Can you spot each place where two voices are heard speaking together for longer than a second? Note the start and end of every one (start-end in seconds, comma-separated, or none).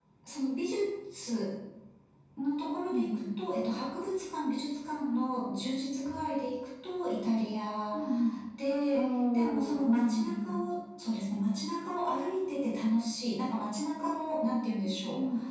8.9-10.6